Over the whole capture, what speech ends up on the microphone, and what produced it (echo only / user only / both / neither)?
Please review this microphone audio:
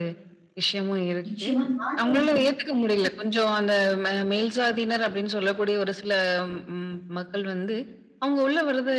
both